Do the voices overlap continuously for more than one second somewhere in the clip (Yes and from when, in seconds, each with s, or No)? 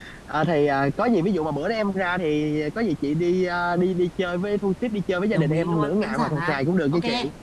Yes, from 5.3 s